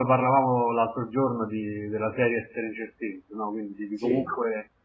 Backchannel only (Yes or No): Yes